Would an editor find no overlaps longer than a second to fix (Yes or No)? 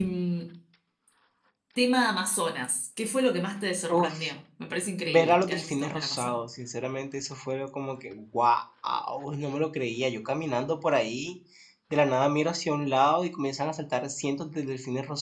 No